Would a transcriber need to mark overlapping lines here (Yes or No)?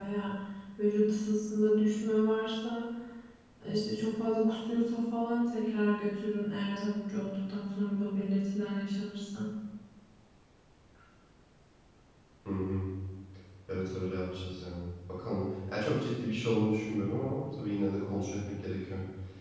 No